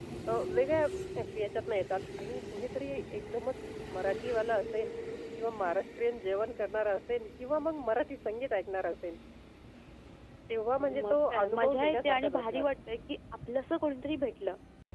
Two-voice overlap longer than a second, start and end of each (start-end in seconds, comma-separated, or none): 10.8-12.7